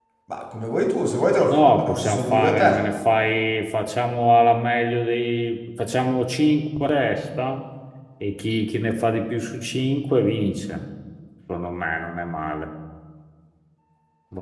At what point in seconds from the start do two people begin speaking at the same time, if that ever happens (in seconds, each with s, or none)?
1.5 s